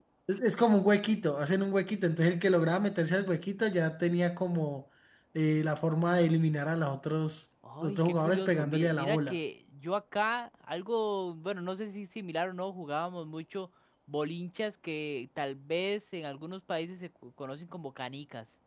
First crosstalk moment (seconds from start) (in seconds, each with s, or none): 7.6 s